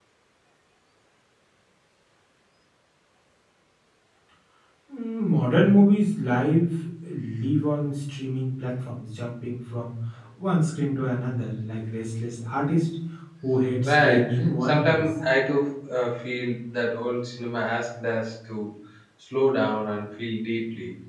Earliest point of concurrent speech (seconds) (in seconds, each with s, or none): 13.8 s